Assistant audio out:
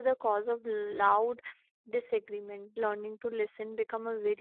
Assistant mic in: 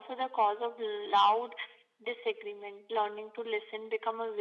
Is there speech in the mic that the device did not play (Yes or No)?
No